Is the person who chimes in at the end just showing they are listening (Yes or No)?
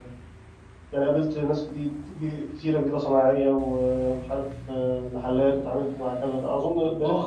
No